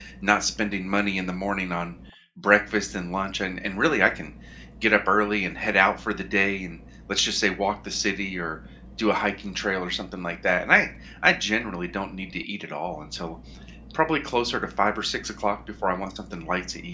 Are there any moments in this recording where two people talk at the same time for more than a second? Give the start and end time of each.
none

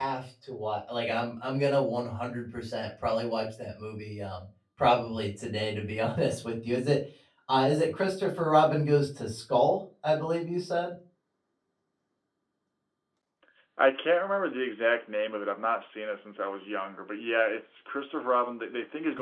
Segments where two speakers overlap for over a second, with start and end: none

